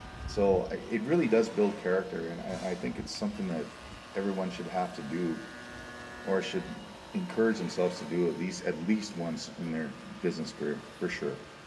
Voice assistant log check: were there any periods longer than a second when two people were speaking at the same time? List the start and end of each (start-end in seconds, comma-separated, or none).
none